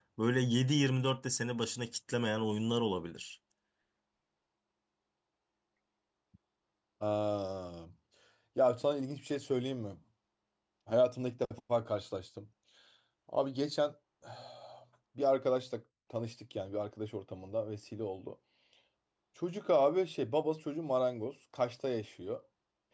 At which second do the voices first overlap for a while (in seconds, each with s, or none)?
none